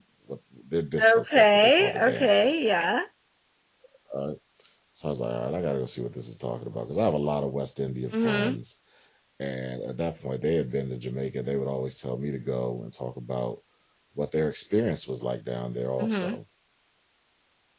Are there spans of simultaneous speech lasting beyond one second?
Yes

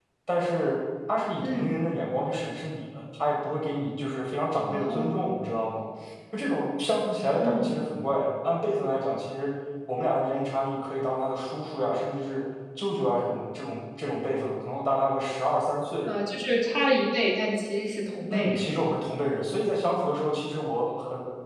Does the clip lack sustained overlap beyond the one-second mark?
Yes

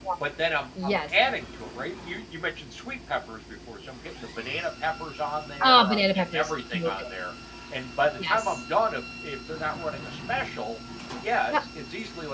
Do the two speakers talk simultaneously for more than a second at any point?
Yes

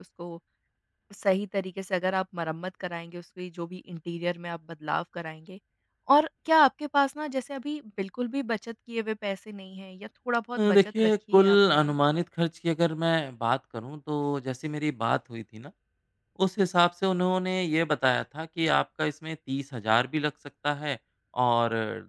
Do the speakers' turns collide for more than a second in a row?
Yes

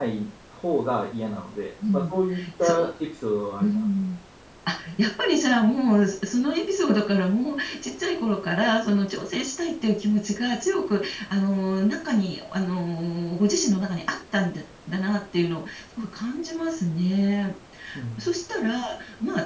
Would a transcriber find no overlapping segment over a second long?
Yes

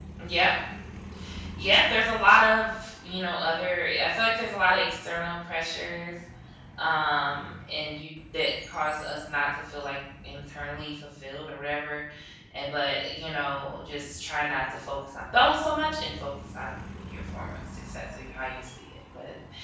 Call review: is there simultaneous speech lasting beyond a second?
No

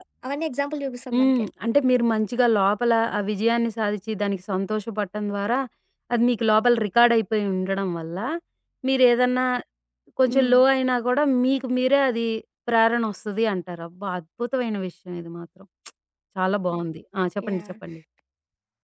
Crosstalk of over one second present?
No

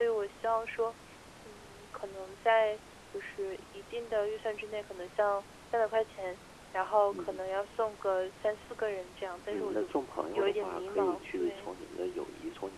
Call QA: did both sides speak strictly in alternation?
No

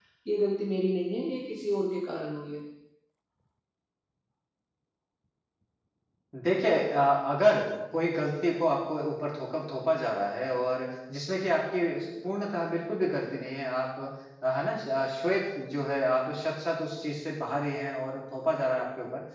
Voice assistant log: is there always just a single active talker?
Yes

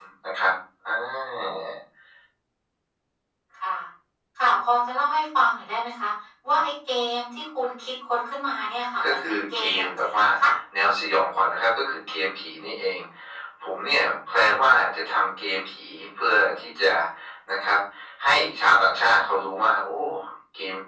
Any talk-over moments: Yes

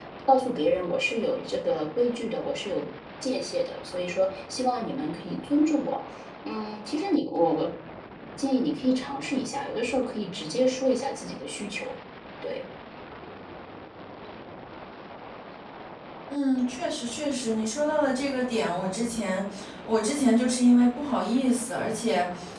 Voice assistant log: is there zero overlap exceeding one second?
Yes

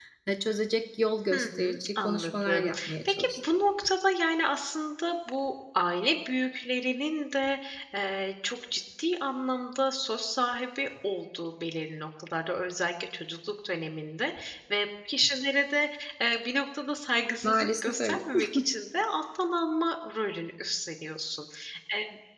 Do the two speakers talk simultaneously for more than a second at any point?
Yes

